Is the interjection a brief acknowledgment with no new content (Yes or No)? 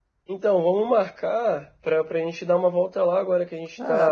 No